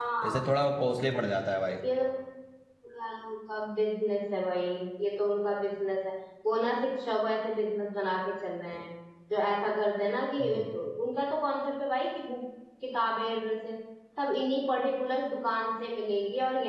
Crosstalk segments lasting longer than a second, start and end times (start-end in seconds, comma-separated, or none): none